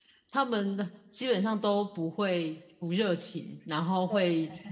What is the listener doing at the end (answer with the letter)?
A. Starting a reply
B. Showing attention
B